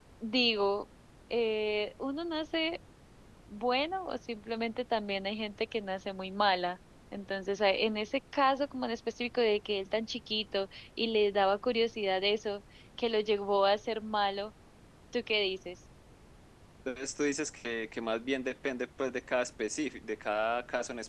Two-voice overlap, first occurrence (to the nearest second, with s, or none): none